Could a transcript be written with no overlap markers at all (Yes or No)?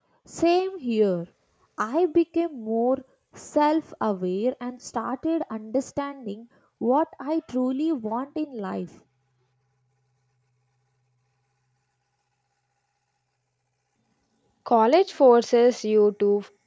Yes